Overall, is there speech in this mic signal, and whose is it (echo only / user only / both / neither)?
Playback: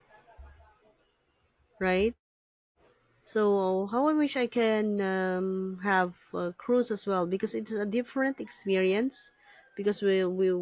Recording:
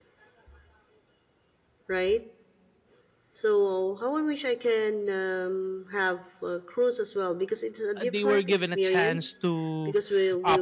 both